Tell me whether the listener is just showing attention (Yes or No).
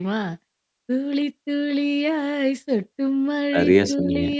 Yes